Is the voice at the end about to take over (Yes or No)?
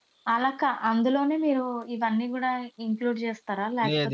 Yes